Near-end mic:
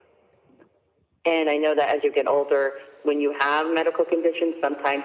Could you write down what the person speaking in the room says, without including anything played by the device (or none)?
none